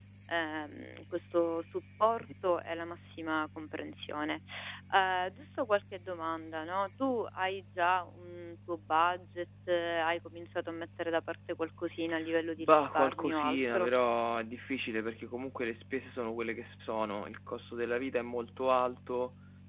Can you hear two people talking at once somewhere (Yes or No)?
Yes